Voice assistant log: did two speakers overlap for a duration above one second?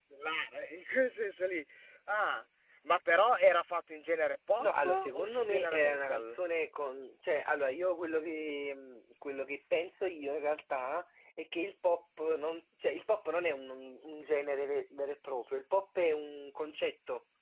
Yes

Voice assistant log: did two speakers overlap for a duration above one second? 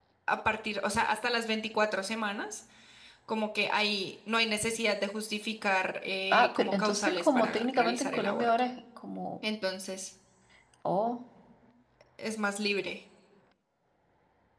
Yes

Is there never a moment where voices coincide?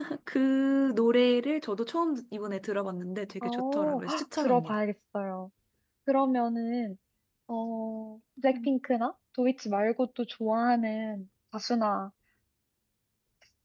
No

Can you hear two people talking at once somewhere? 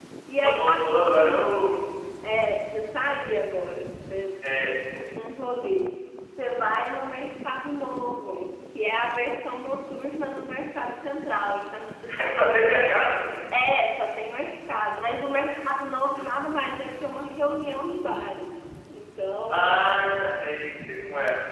Yes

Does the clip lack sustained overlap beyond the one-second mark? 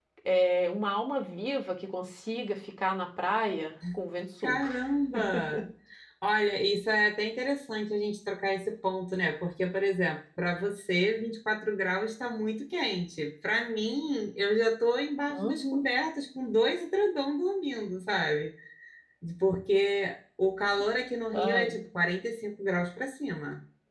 Yes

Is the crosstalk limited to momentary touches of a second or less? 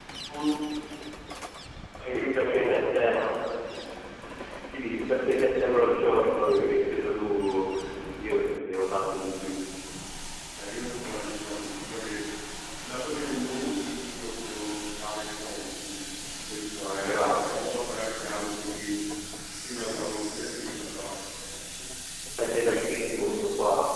No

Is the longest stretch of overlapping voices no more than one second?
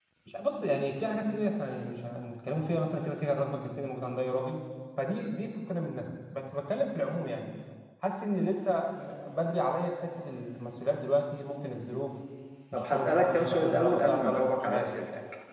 No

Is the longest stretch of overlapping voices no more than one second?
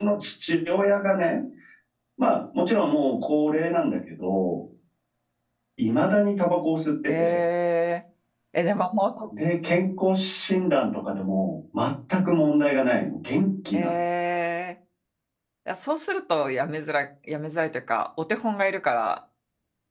Yes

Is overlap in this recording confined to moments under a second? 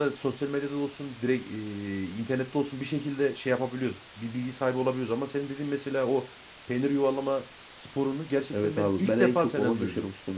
No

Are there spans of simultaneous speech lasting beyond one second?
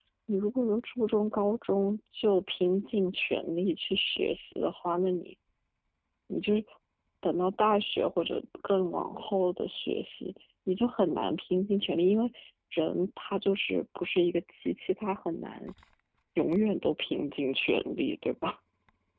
No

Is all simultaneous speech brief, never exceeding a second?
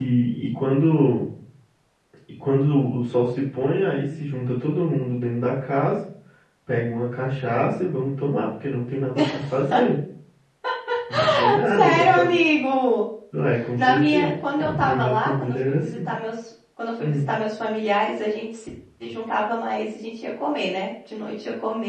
No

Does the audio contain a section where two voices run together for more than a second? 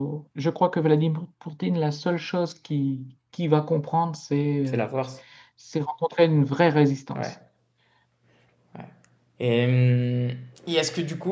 No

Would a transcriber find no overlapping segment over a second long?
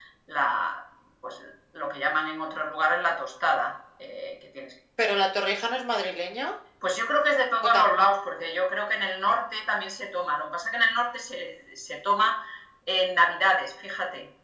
Yes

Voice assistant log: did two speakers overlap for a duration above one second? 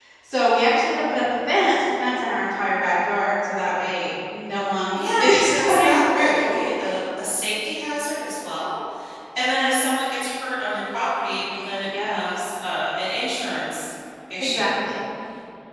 Yes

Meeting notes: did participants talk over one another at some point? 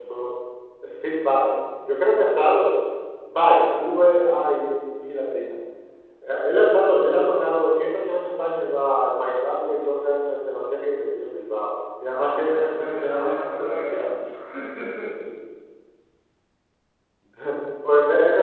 Yes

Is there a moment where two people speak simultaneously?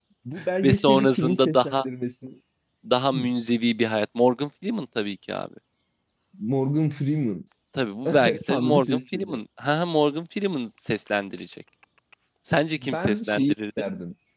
Yes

